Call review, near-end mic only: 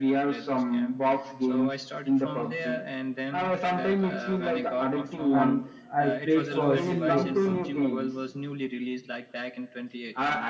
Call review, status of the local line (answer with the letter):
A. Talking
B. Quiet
A